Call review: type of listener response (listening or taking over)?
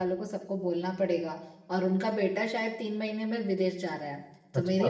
listening